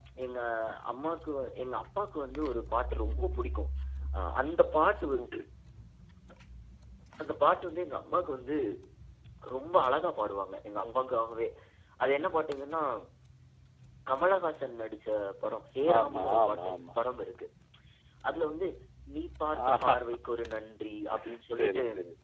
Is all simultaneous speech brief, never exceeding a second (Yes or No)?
No